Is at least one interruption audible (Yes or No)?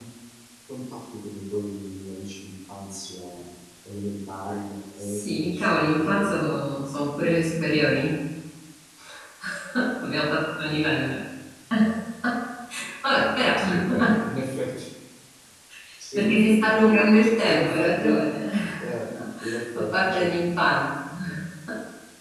Yes